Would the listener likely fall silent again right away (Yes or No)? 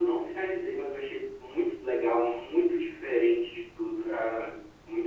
Yes